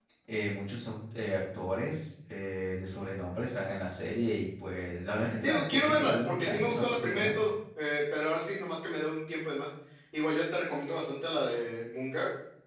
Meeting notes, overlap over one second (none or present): present